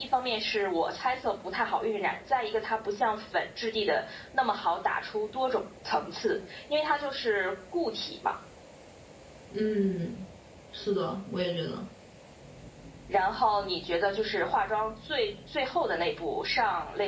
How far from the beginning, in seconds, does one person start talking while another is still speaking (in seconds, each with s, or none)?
none